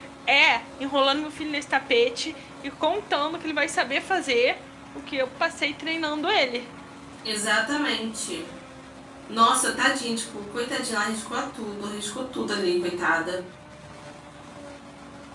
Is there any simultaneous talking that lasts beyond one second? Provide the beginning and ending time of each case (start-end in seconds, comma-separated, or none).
none